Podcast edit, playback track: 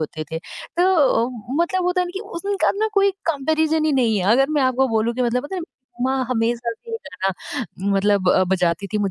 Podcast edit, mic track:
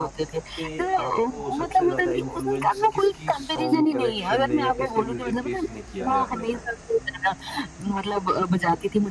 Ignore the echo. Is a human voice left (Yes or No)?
Yes